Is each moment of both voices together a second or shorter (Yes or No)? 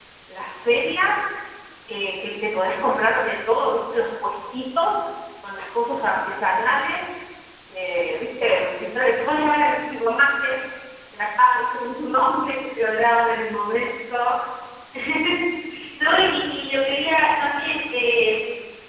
Yes